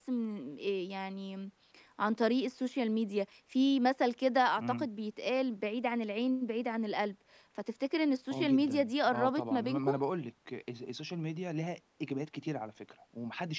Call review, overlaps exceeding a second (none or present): present